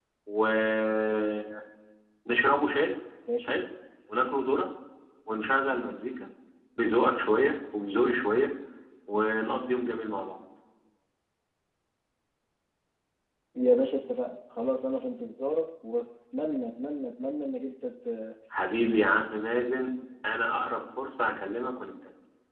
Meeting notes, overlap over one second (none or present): none